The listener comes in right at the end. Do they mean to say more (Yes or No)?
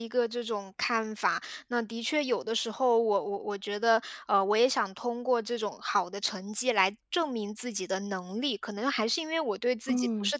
No